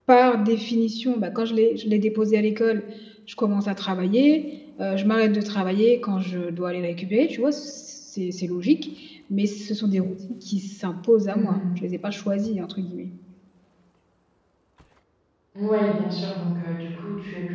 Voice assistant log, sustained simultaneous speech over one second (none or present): none